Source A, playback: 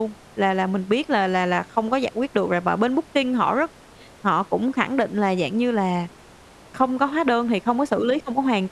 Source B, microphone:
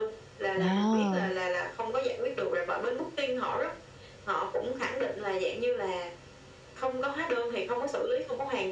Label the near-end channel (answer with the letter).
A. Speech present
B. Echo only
A